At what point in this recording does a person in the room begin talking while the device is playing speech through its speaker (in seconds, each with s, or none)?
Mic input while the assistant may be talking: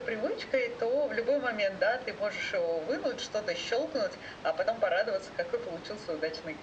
none